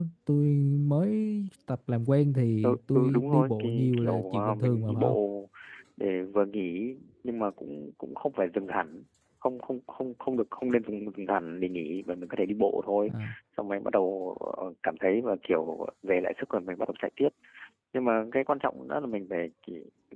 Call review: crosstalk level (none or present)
present